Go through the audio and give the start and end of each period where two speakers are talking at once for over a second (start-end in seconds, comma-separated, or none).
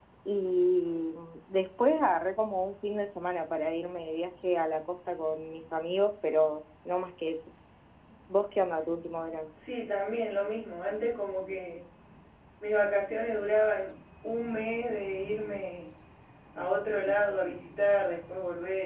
none